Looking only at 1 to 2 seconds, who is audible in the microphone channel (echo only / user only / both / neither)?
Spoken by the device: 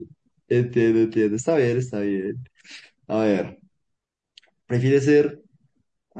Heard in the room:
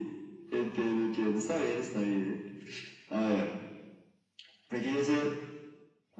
echo only